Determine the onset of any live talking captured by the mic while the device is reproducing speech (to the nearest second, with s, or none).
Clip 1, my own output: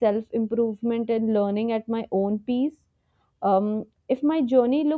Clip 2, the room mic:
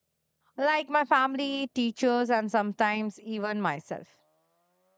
1 s